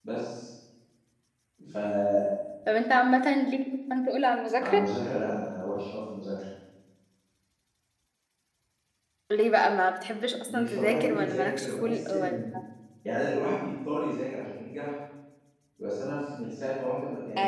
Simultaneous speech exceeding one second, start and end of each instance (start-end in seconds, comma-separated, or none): 10.5-12.4